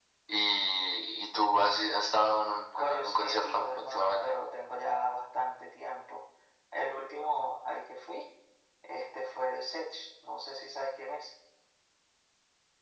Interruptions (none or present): present